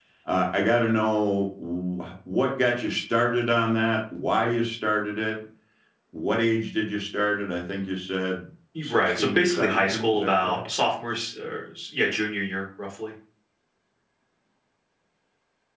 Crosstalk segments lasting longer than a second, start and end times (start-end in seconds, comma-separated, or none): 8.8-10.6